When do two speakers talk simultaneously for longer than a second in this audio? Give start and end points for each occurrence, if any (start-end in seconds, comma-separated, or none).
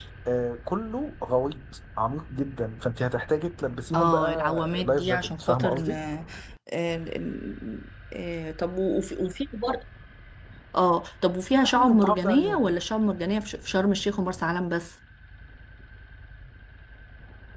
3.9-5.9, 11.5-12.7